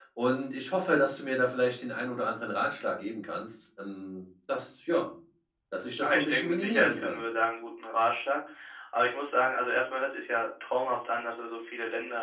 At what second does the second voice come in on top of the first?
6.0 s

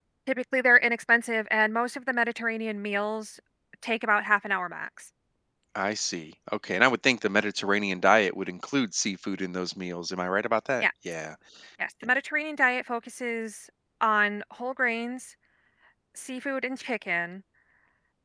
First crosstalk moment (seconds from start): none

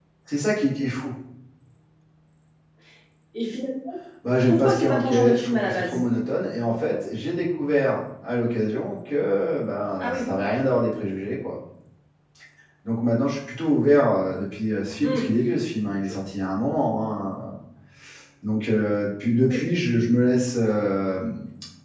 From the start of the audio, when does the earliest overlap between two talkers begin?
4.5 s

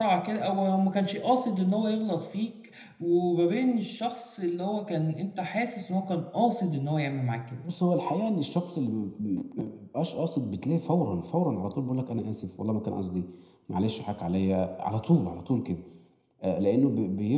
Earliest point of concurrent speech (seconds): none

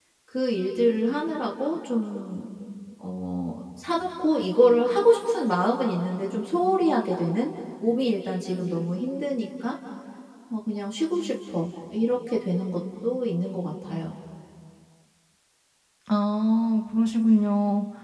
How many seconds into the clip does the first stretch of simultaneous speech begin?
none

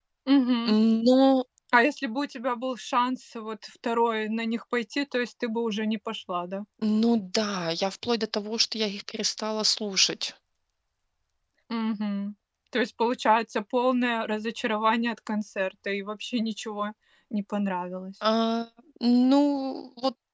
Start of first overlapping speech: none

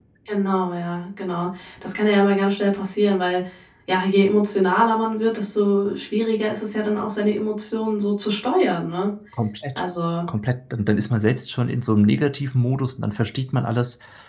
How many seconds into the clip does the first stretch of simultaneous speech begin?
none

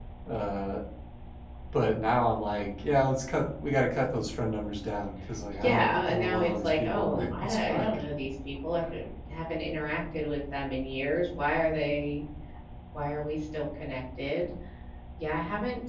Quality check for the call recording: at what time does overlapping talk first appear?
5.5 s

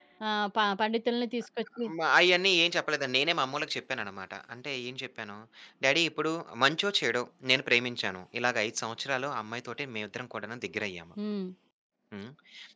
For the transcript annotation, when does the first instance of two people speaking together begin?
none

